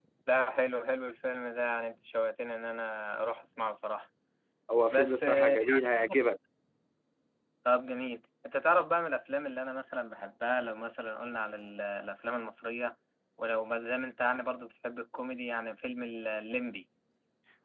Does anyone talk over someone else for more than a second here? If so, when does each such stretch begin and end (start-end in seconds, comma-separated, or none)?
4.9-6.2